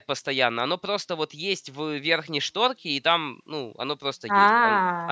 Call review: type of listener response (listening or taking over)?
listening